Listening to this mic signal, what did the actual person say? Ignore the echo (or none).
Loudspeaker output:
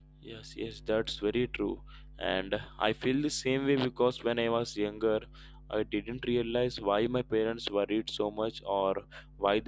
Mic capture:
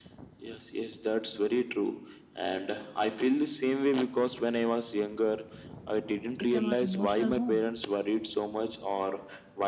become our emotional home.